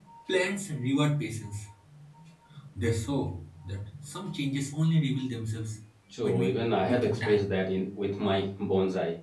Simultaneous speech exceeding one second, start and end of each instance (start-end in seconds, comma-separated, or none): 6.2-7.5